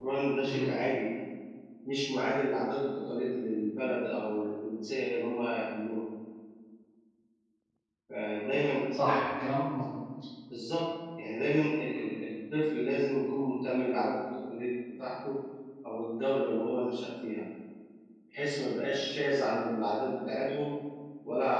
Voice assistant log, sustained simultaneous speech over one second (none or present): none